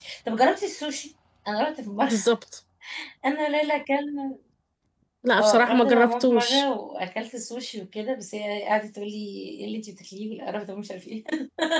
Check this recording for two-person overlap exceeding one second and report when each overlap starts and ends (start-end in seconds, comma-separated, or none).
5.4-6.7